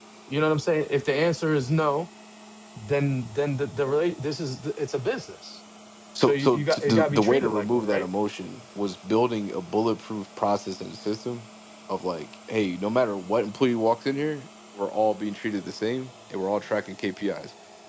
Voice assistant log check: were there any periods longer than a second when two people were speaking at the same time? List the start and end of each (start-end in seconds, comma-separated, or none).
6.2-8.1